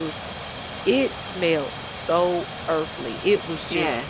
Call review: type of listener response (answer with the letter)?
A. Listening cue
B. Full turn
A